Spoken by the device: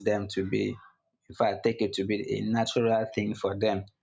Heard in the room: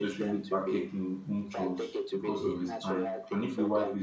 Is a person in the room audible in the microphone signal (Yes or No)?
Yes